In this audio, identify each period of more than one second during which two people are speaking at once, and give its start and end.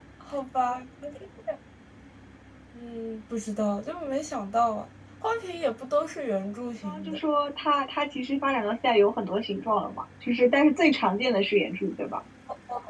none

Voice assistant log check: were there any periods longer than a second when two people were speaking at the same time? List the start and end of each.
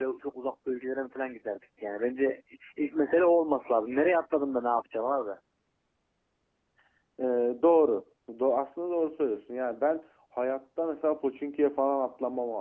none

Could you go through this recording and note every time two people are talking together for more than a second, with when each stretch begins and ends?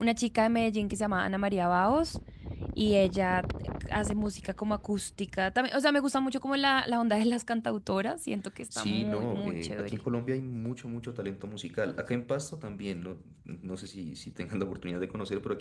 8.8-10.0

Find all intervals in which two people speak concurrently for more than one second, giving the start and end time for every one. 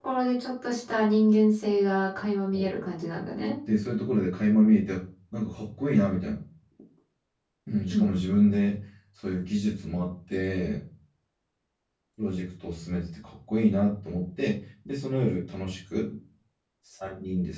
none

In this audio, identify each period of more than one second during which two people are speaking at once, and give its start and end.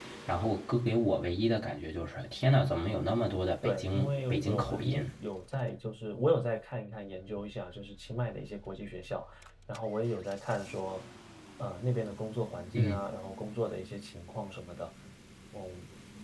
3.6-5.1

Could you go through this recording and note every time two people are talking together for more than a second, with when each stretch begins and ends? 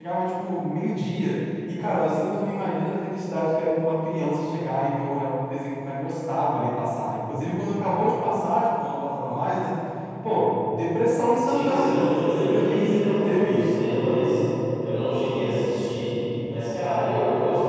11.4-14.0

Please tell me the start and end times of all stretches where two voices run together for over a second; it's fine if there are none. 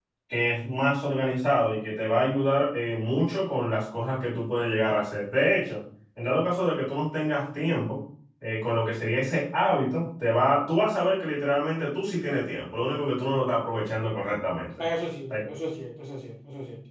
none

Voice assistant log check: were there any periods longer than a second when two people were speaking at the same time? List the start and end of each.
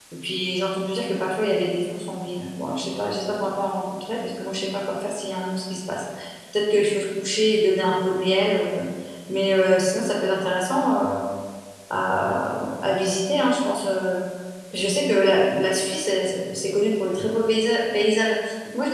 none

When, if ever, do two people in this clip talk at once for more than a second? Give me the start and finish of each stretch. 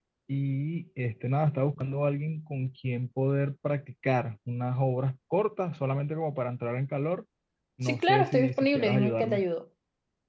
7.8-9.4

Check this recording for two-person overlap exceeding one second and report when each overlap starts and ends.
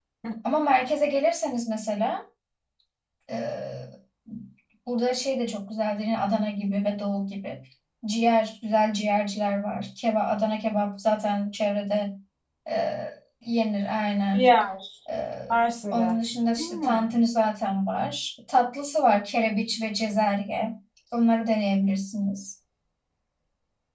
none

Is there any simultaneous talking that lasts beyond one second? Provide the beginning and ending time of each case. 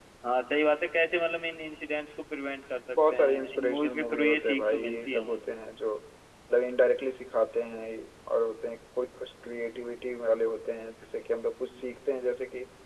2.9-5.4

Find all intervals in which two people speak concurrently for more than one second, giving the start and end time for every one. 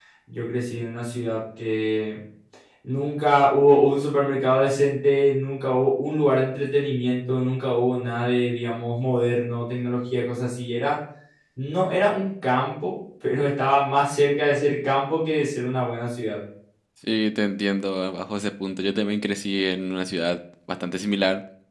none

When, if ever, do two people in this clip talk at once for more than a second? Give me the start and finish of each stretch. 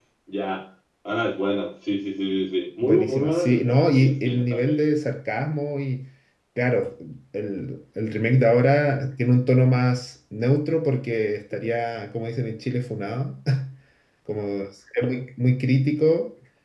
2.8-4.8

